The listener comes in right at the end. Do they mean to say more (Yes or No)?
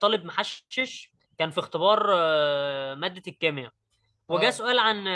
No